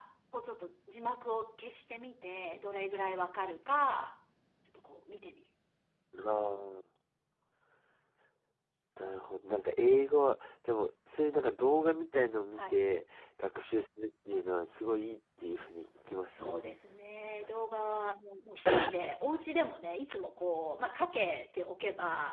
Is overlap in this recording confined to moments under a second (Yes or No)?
Yes